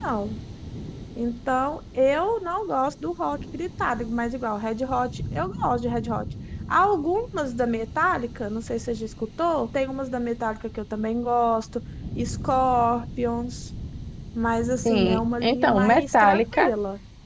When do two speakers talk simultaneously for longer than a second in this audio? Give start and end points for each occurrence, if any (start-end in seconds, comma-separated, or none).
14.8-16.7